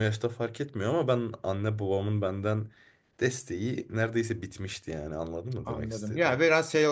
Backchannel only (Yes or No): No